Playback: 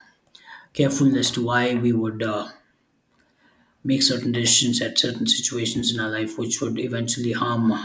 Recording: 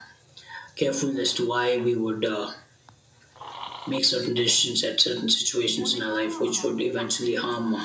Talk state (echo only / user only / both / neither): both